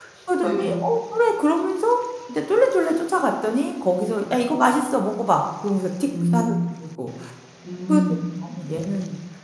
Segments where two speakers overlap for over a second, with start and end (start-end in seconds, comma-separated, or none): none